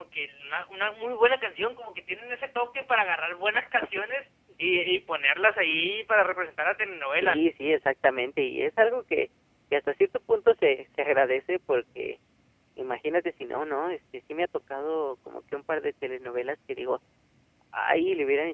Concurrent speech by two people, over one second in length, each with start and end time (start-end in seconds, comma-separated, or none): none